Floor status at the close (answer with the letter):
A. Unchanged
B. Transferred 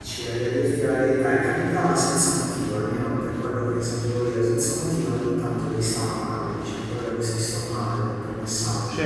A